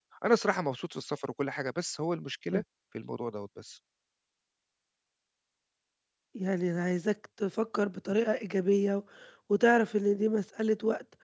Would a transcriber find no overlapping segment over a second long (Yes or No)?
Yes